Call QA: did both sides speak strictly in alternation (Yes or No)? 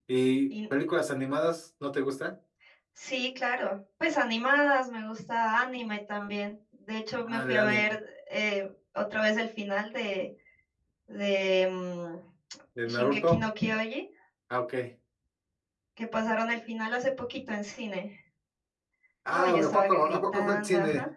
No